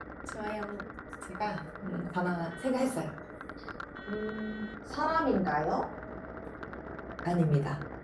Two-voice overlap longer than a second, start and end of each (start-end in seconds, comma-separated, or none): none